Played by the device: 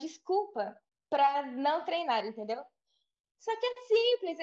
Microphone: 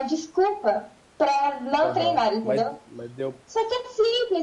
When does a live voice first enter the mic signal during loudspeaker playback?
1.8 s

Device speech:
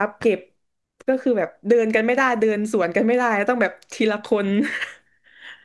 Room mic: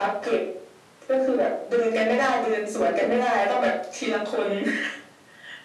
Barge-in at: none

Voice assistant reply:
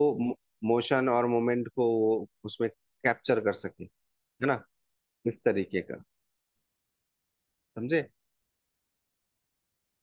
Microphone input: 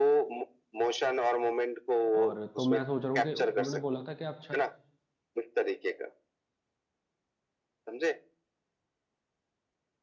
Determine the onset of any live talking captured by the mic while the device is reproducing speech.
2.1 s

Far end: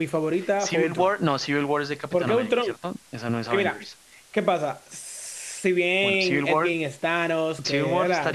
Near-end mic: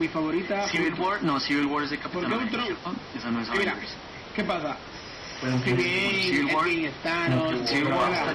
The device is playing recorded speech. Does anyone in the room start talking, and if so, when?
5.3 s

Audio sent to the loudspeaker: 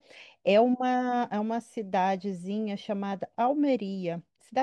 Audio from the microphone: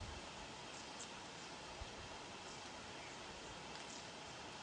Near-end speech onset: none

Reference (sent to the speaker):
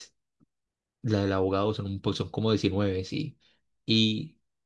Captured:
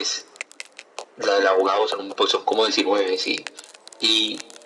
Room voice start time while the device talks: none

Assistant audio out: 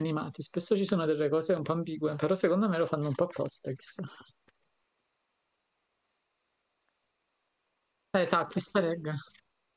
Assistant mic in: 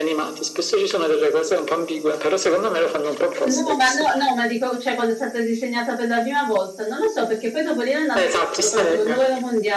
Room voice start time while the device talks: 3.4 s

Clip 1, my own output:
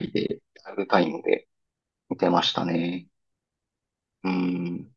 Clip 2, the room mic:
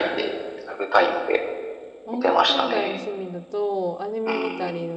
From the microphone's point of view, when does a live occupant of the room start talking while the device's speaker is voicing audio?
2.0 s

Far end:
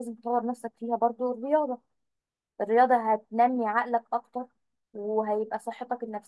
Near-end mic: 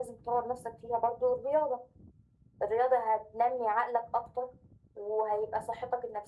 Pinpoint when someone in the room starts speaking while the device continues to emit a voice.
none

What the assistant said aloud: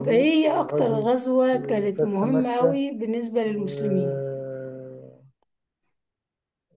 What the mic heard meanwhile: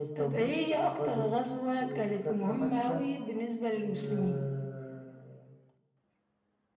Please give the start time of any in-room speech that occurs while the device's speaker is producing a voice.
none

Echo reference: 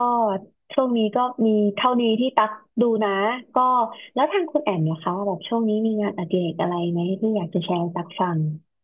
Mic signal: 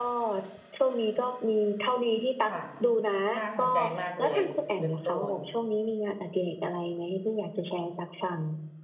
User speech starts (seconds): 2.5 s

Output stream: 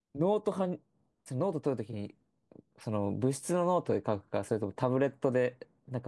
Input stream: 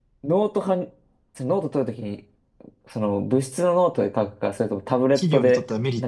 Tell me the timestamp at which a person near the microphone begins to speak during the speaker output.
5.1 s

